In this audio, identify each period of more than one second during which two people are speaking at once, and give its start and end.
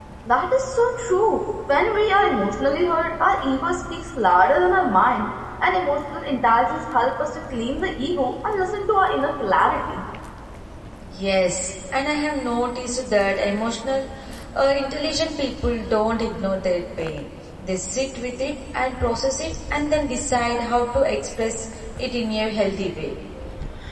none

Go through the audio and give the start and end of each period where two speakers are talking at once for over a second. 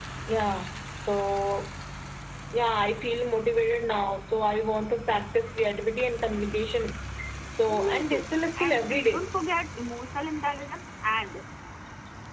7.8-9.3

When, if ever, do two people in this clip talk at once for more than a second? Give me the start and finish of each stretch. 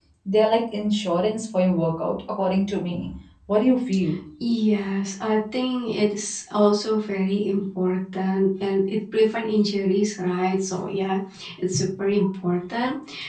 none

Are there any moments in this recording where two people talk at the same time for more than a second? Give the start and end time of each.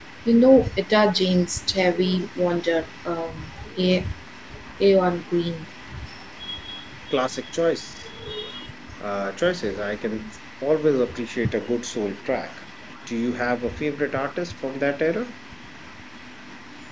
none

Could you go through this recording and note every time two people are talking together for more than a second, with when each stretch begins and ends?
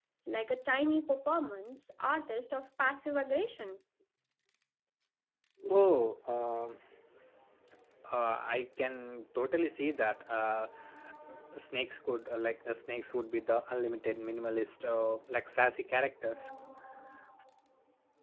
none

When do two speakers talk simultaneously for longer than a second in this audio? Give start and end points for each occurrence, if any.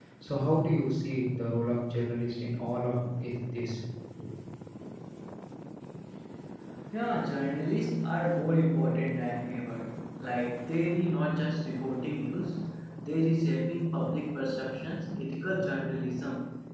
none

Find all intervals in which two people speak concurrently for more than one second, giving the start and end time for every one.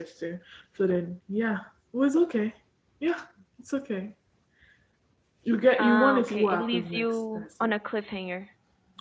5.8-7.7

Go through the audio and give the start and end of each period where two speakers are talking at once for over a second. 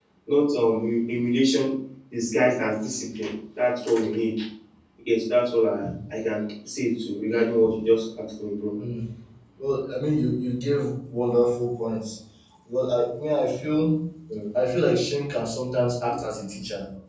none

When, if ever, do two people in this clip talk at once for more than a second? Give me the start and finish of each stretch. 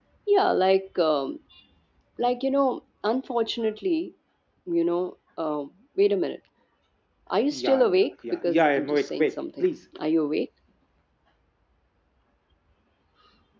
7.5-9.7

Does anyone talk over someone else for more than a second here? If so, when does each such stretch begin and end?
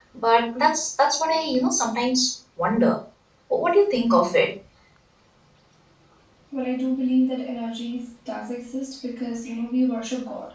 none

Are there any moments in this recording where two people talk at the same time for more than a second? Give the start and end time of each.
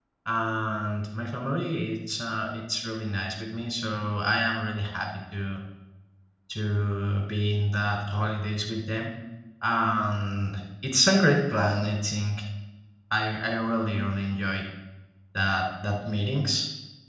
none

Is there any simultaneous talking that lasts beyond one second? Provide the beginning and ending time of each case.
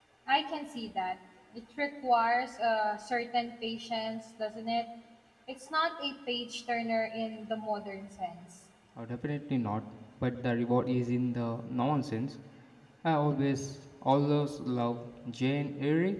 none

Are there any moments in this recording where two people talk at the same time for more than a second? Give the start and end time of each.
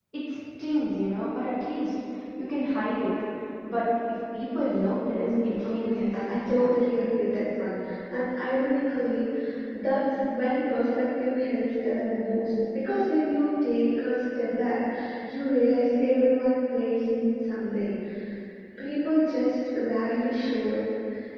5.1-6.9

